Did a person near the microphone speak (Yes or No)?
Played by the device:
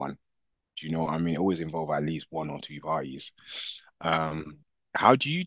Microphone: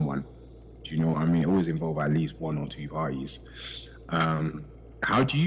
No